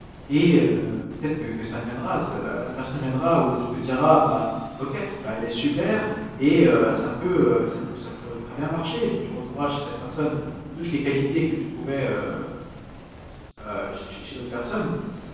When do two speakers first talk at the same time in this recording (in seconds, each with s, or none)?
none